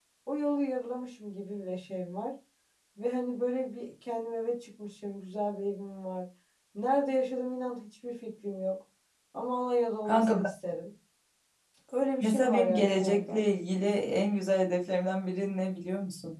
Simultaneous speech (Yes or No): Yes